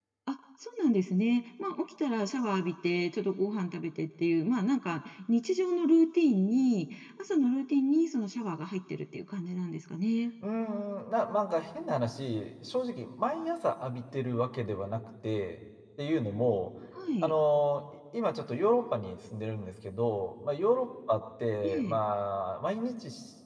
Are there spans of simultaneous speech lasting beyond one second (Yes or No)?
No